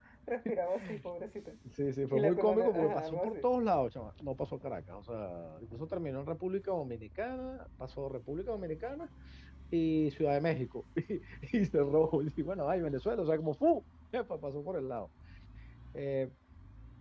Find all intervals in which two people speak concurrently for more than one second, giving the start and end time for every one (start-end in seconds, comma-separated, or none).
2.1-3.4